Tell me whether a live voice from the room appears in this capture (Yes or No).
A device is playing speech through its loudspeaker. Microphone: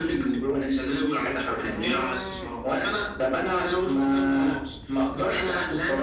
No